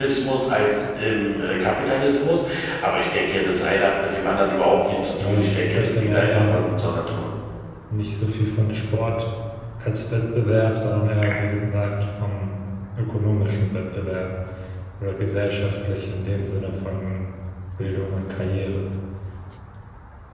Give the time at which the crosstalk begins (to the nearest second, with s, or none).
5 s